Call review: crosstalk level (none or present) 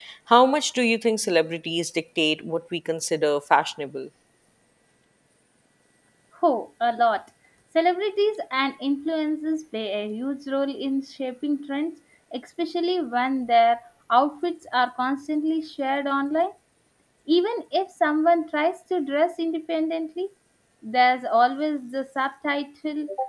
none